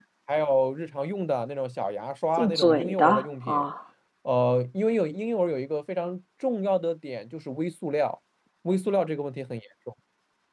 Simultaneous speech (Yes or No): Yes